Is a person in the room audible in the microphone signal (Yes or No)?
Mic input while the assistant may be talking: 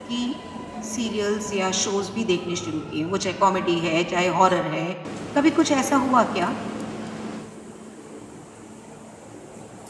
Yes